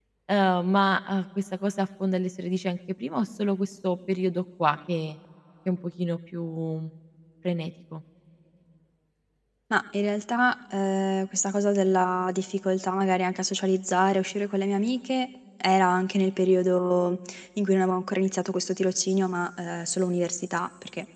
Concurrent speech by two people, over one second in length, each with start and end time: none

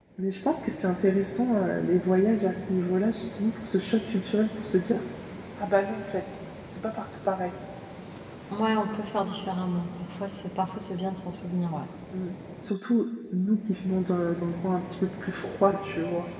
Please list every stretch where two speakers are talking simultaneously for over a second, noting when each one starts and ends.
none

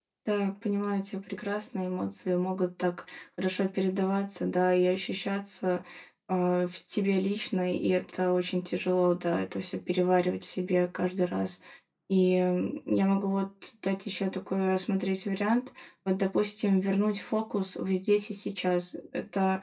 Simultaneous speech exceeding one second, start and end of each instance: none

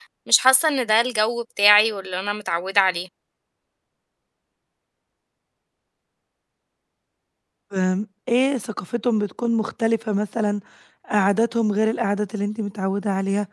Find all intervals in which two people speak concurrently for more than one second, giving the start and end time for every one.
none

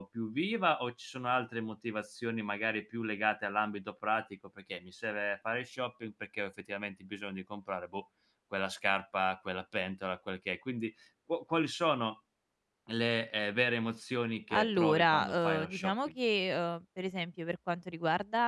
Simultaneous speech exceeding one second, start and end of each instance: 14.5-15.9

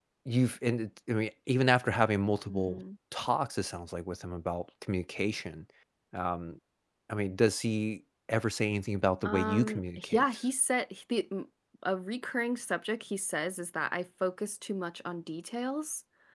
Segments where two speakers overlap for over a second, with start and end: 9.2-10.4

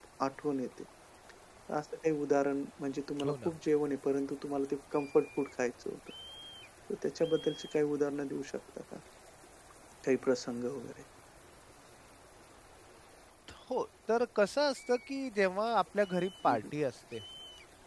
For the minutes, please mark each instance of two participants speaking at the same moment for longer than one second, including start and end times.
none

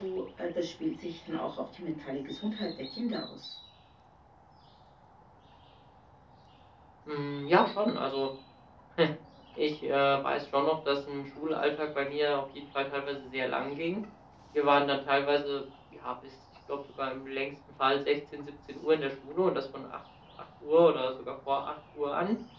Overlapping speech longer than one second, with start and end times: none

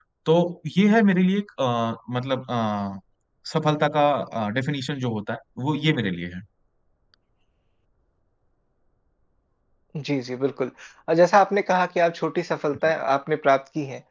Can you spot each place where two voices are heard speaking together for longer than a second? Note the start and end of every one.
none

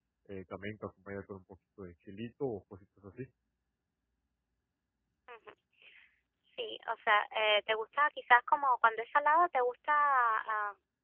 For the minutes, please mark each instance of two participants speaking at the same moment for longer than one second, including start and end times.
none

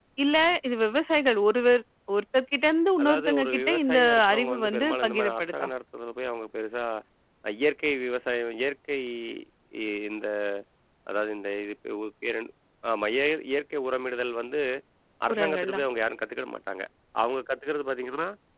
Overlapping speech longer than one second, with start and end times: 3.0-5.7

